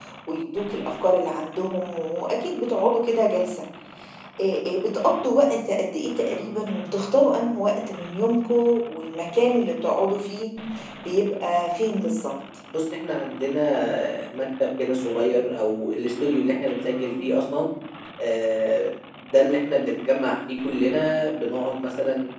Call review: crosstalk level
none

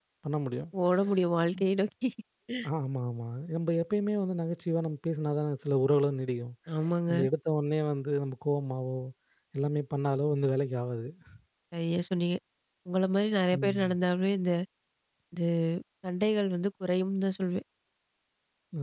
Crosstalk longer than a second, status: none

